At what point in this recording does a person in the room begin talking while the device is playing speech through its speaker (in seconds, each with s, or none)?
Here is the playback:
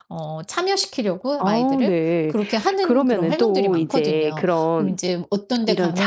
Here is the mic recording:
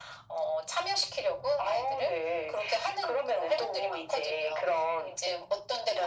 none